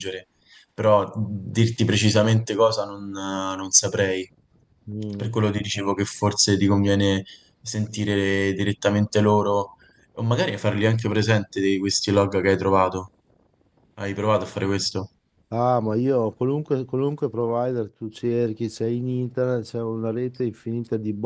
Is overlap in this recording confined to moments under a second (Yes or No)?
Yes